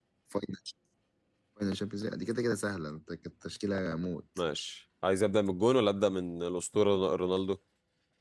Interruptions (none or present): none